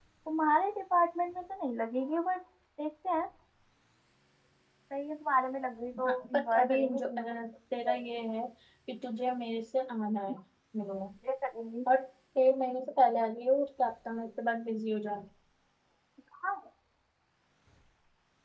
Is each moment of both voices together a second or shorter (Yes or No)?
No